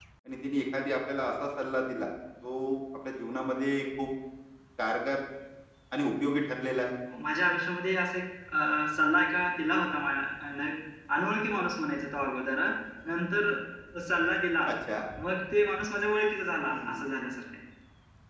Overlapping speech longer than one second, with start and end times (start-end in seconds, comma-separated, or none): none